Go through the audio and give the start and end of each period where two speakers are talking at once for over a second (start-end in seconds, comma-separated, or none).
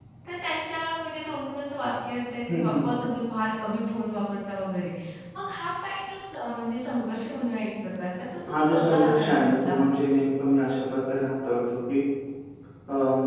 8.5-9.8